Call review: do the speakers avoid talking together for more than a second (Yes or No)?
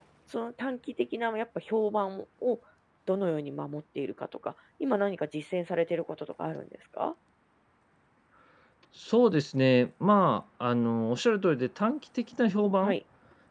Yes